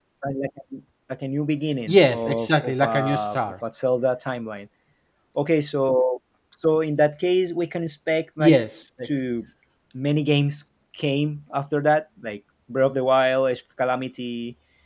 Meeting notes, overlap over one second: present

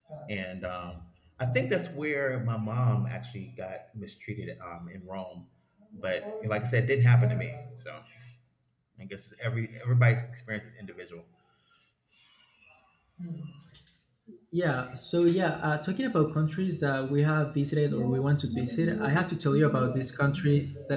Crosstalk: present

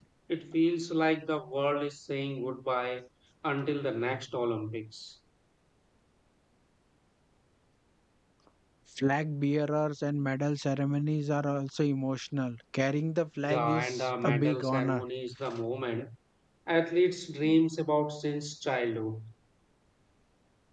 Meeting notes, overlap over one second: present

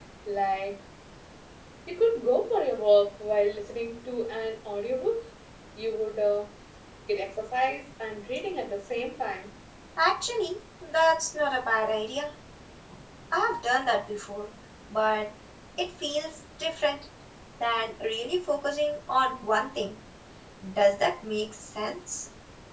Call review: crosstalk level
none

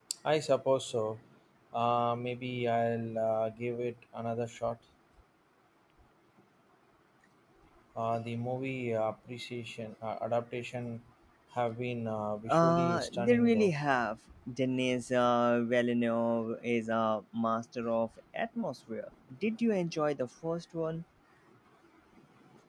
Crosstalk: present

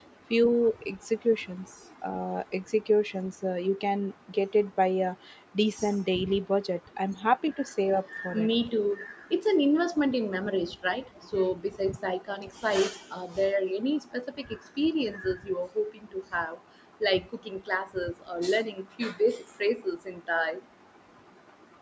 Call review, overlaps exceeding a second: none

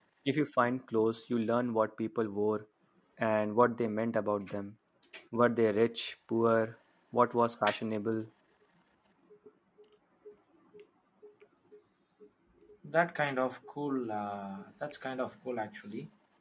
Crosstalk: none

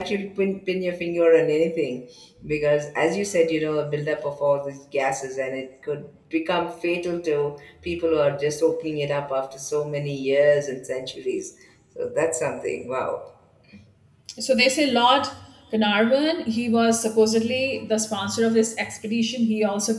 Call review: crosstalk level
none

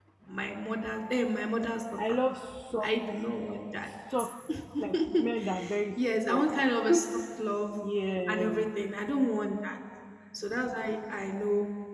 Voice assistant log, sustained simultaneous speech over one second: none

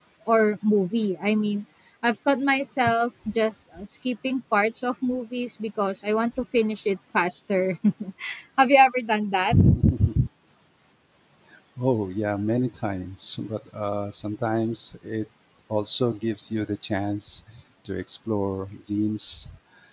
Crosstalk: none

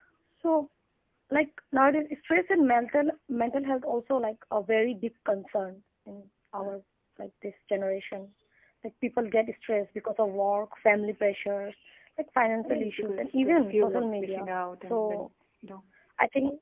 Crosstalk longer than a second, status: present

